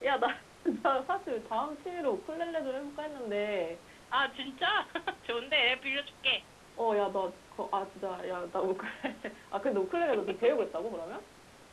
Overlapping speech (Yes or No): No